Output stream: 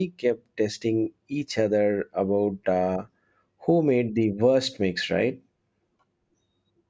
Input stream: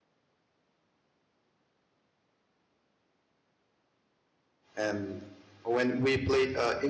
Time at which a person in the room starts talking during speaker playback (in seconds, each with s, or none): 4.8 s